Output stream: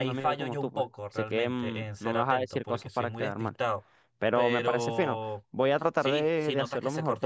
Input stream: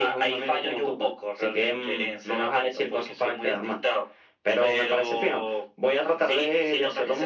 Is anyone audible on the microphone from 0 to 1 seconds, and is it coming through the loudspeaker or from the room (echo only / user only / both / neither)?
echo only